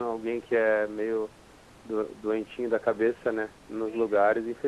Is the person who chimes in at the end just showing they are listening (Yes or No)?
No